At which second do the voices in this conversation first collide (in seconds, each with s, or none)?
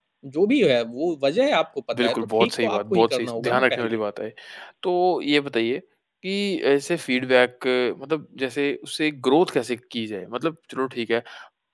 1.9 s